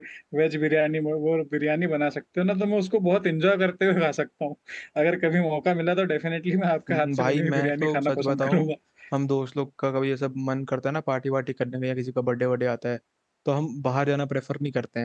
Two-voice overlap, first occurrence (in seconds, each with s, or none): 6.9 s